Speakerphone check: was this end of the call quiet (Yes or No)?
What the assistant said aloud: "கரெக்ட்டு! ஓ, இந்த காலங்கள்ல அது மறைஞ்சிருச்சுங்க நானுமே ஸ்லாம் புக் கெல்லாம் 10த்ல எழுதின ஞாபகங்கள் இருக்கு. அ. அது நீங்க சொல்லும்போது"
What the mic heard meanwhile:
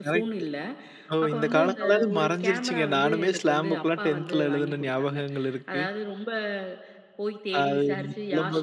No